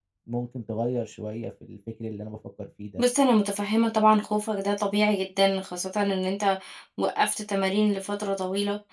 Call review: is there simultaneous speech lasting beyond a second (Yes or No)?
No